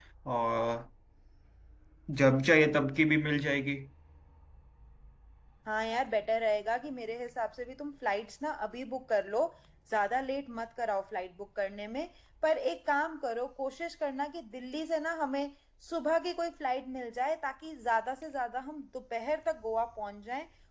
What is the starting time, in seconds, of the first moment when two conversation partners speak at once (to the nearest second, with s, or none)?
none